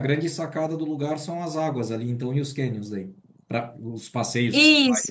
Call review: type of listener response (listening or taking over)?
taking over